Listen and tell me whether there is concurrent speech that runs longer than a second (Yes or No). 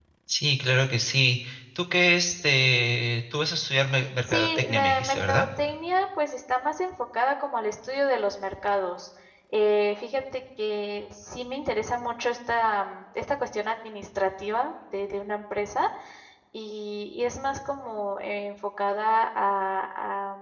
Yes